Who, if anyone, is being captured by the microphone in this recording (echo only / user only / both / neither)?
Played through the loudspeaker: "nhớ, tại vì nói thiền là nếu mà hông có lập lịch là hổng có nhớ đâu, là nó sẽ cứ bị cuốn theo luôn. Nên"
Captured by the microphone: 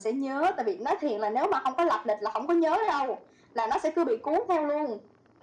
echo only